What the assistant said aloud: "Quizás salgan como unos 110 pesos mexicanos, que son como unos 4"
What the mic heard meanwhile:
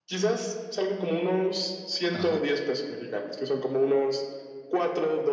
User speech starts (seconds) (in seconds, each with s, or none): 2.1 s